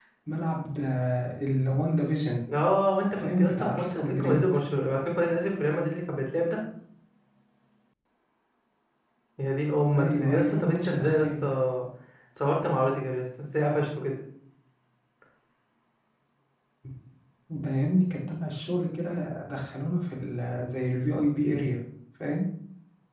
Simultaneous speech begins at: 3.2 s

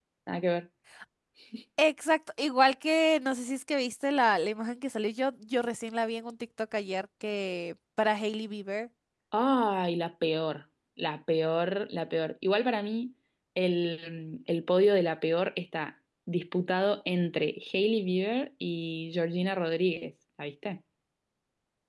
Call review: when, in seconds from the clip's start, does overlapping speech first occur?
none

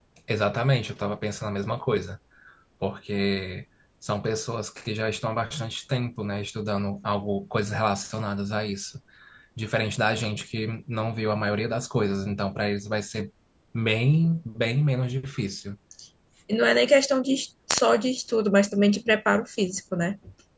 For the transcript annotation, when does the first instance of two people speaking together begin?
none

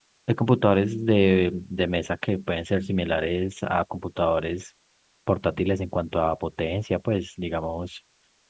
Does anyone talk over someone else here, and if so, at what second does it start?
none

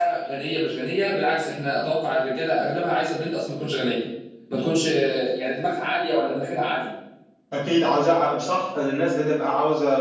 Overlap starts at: none

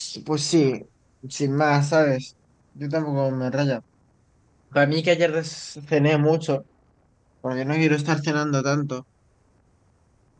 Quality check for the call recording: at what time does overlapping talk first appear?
none

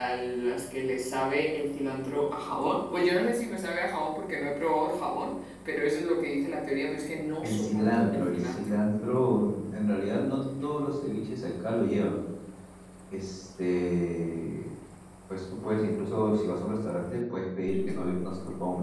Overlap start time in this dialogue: 7.4 s

